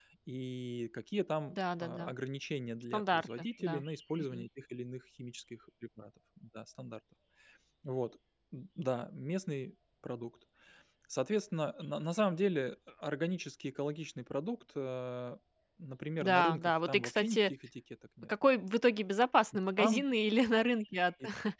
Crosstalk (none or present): present